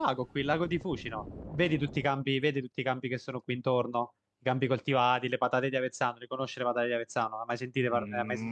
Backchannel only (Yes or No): No